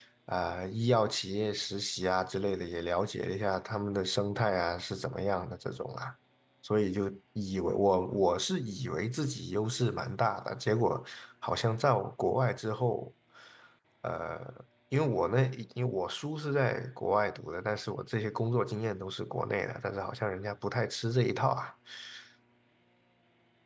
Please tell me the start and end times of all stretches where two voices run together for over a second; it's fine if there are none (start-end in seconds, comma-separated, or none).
none